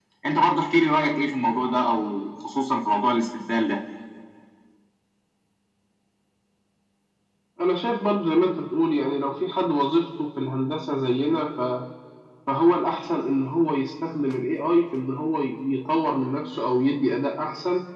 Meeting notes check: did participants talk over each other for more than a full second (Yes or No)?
No